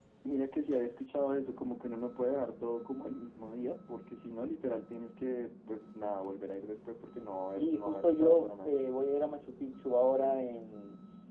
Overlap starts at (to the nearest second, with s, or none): 7 s